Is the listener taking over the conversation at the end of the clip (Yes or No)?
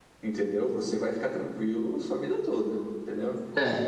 No